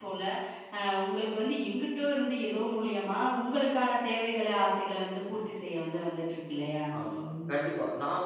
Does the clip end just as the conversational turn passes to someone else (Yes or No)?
Yes